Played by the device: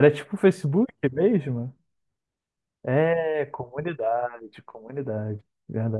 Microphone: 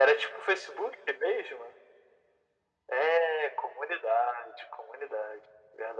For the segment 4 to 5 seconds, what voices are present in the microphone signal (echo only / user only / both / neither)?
echo only